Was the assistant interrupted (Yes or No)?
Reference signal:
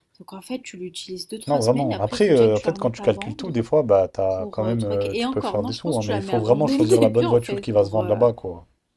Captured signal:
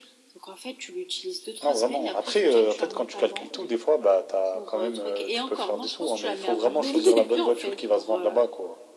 No